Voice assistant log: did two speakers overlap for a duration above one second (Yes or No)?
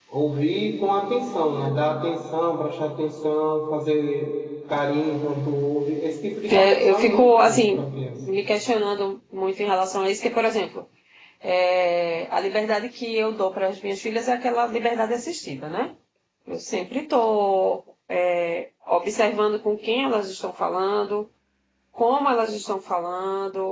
Yes